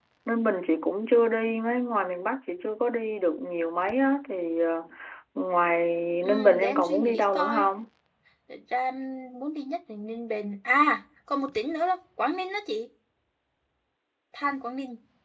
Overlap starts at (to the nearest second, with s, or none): 6 s